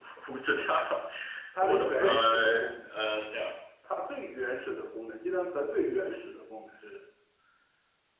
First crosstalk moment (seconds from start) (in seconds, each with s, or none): 1.6 s